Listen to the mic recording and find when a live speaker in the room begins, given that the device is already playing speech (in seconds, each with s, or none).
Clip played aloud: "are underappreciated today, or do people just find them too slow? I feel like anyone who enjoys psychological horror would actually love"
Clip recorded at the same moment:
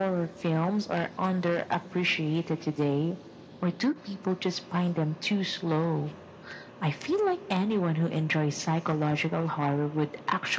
none